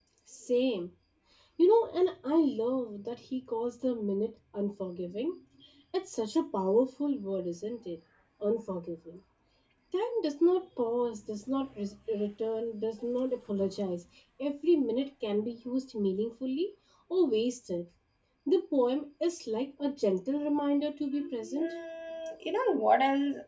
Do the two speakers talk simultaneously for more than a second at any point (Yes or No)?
No